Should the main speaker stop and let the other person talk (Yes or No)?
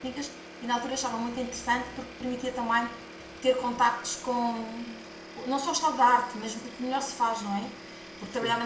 No